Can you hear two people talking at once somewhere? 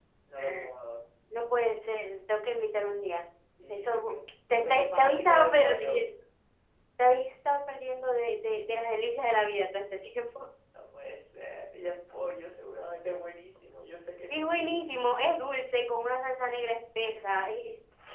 Yes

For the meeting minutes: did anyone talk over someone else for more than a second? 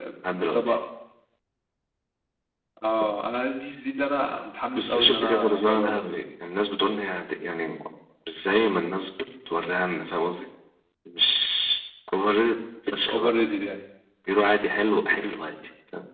Yes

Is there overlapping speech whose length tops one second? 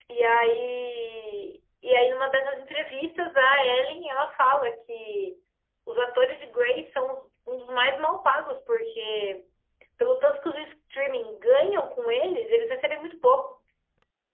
No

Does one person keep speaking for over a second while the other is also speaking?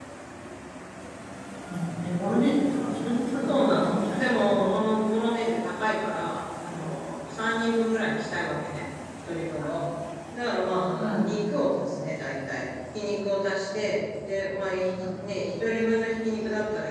Yes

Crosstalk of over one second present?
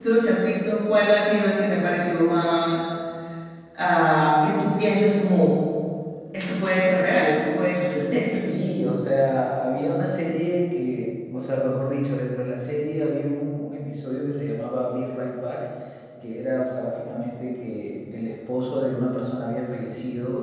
No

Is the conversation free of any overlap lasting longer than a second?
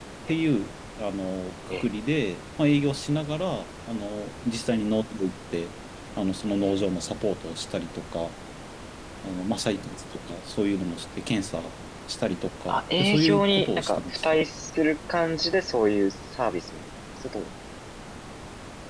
No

